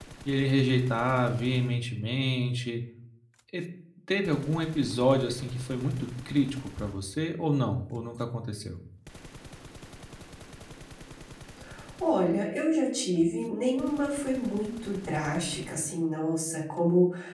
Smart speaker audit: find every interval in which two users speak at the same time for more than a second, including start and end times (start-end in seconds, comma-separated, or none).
none